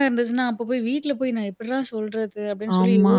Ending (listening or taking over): listening